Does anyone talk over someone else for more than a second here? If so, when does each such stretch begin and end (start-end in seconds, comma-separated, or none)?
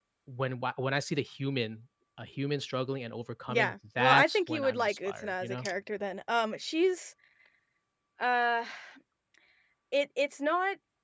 3.5-5.7